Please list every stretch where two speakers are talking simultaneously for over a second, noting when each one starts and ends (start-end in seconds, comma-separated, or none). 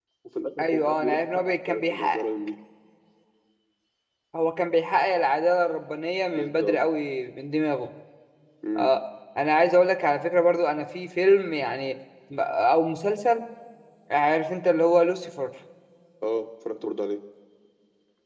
0.6-2.2